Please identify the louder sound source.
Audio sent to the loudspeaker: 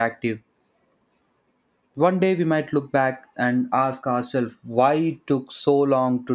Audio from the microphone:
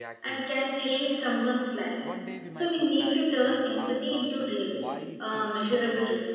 user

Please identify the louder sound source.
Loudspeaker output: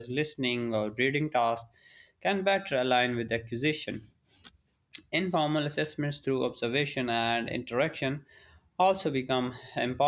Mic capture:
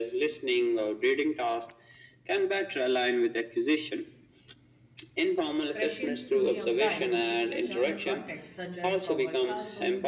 echo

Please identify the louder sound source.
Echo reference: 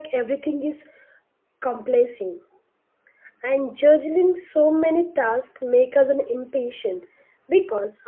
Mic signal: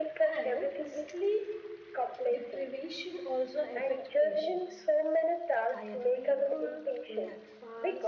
echo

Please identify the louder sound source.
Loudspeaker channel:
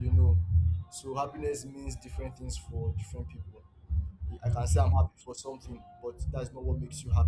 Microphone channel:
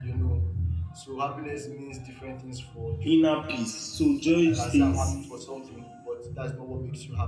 user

